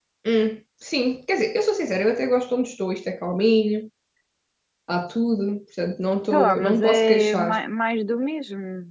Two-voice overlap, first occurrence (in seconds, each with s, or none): 6.3 s